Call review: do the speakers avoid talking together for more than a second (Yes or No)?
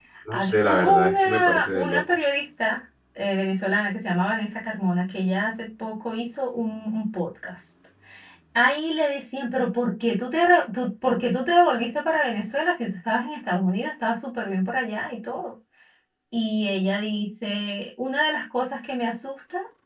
No